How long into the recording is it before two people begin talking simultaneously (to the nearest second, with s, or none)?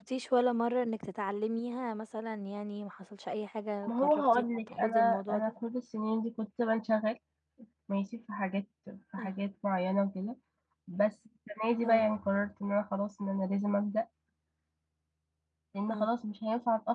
4 s